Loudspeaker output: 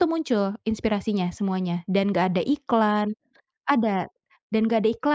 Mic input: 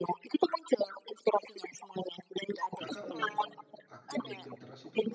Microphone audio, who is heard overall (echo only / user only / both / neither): both